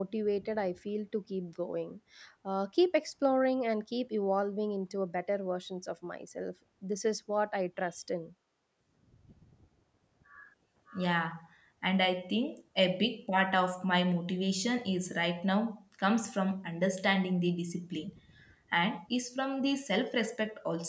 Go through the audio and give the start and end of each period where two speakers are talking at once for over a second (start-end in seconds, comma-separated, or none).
none